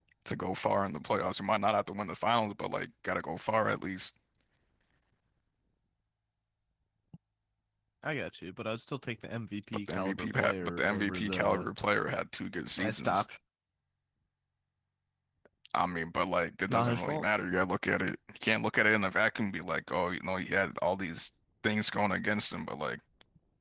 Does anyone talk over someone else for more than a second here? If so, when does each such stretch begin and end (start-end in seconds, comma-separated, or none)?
9.9-11.7